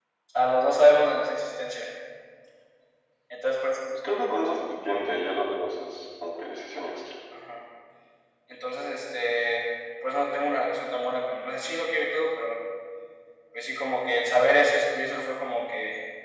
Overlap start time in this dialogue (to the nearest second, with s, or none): none